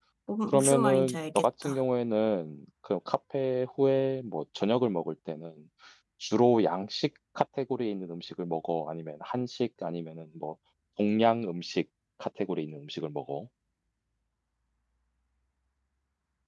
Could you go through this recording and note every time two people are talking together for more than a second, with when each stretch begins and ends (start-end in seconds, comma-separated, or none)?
0.5-1.8